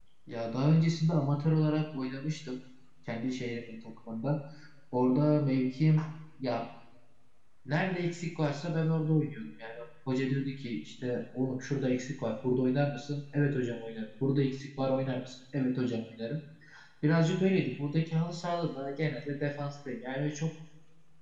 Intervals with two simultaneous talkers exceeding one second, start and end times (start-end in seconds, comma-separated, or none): none